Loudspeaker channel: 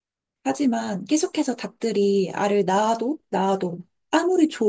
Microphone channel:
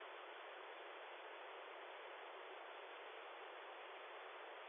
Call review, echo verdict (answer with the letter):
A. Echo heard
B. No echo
B